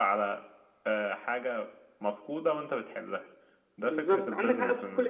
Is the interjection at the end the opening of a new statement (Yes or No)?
Yes